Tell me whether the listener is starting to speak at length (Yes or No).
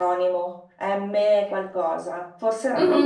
Yes